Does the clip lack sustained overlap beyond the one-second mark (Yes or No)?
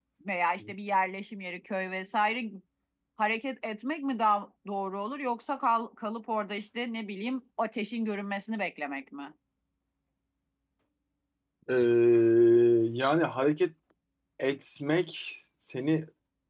Yes